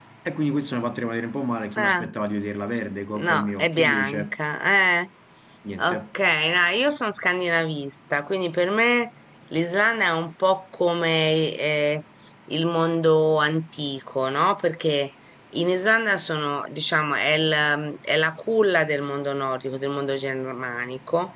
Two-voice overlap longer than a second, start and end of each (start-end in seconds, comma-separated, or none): 3.1-4.4